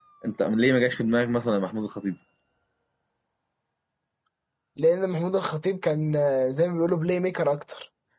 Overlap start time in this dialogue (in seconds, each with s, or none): none